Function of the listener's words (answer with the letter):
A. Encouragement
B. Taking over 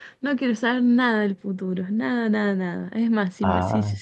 A